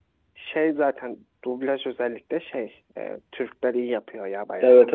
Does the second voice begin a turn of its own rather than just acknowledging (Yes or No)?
Yes